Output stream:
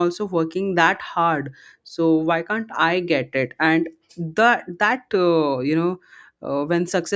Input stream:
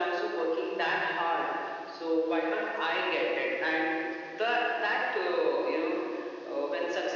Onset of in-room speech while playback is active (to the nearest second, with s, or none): none